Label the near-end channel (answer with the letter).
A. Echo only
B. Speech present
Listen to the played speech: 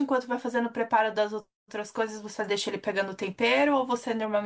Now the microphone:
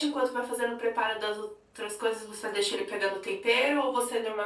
A